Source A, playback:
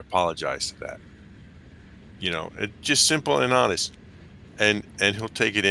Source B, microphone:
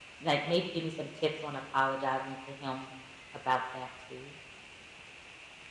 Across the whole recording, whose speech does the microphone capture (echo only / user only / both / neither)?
user only